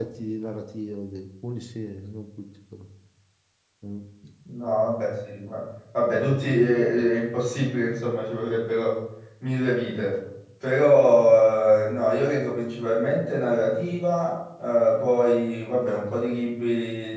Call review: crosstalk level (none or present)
none